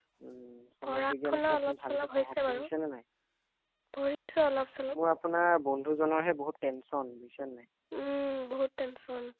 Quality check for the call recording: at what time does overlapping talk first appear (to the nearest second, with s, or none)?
1 s